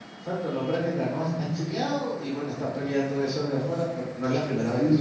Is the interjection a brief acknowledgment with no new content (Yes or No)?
No